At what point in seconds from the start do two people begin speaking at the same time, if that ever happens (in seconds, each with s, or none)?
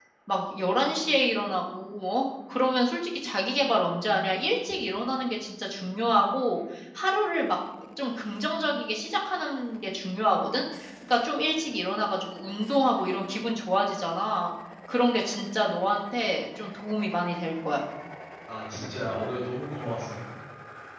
none